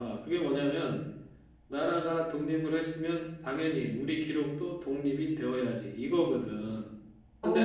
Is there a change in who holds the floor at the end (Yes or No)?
No